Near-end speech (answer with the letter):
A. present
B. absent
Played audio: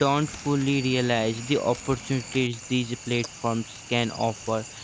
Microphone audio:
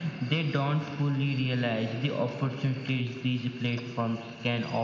B